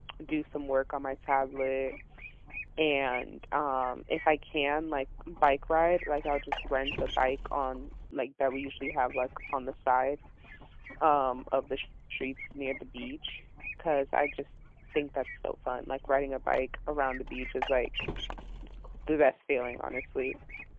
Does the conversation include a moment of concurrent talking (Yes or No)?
No